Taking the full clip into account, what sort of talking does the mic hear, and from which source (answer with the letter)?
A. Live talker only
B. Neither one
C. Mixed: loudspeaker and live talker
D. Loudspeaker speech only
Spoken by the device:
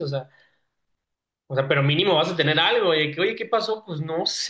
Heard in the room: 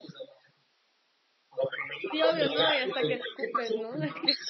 C